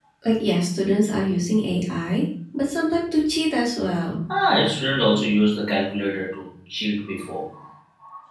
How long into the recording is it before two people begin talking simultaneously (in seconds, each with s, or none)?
none